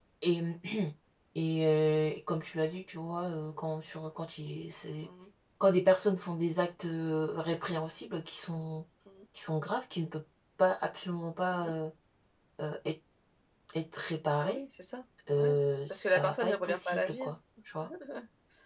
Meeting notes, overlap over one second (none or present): present